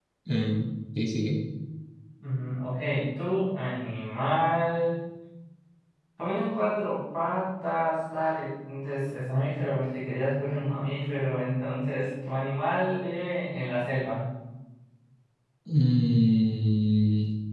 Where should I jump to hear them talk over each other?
none

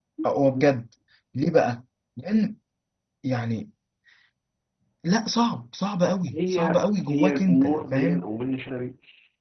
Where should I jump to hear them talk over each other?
6.2 s

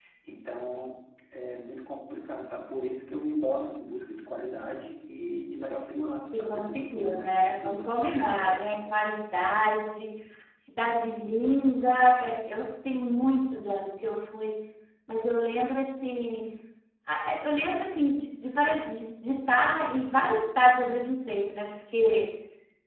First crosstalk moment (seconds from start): 6.3 s

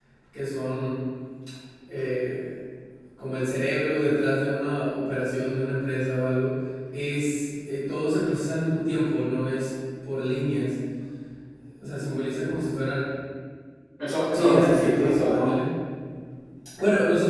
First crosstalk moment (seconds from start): 14.3 s

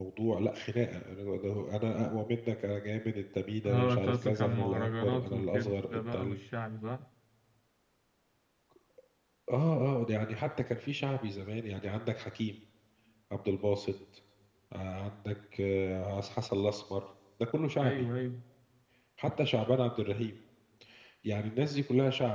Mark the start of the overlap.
3.6 s

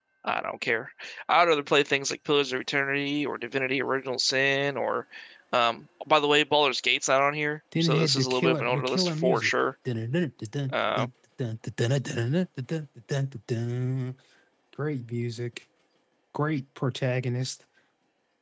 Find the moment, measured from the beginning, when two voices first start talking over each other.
7.7 s

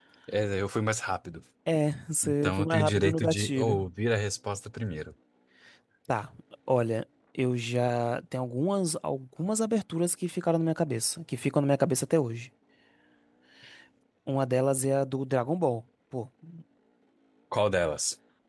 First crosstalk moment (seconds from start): 2.2 s

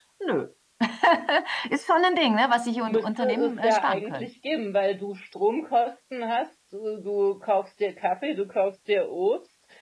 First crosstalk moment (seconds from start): 2.9 s

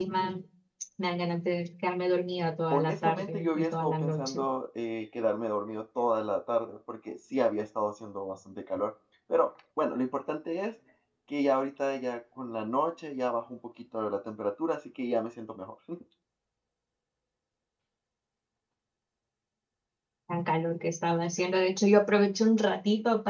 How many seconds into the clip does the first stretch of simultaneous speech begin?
2.7 s

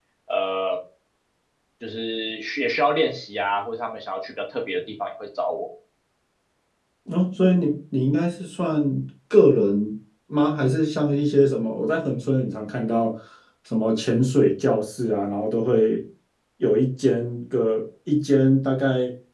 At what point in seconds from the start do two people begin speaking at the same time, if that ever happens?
none

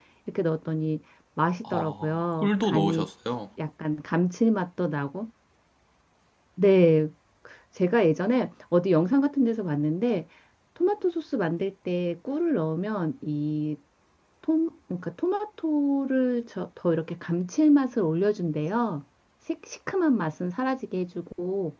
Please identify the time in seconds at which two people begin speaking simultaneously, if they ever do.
1.6 s

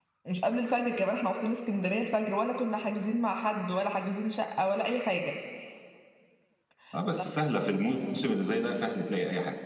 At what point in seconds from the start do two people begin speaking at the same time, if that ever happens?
none

